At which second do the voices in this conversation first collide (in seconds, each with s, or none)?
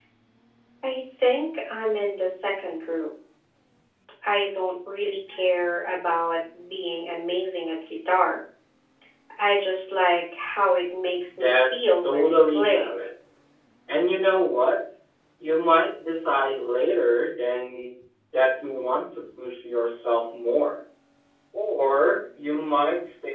11.3 s